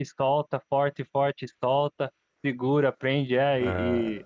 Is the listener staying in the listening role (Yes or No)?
Yes